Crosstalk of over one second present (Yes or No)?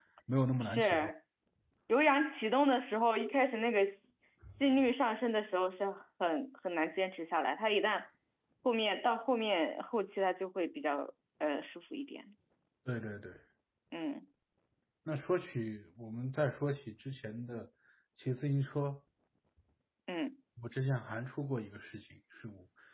No